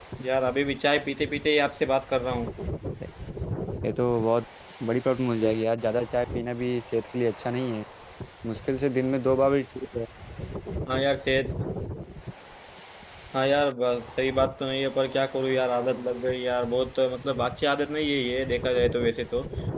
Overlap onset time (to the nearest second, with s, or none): none